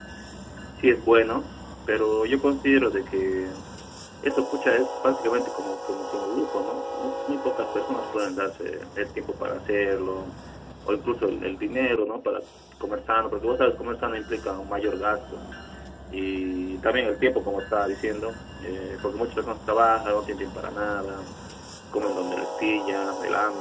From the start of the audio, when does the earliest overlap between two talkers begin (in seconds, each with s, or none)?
none